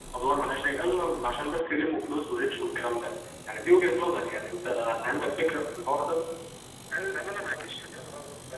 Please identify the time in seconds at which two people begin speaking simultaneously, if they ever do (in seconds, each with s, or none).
none